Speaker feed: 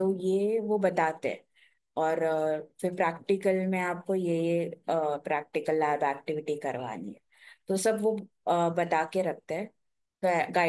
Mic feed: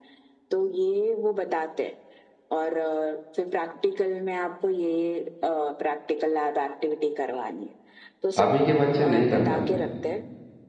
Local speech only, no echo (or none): अभी के बच्चे नहीं कर पाते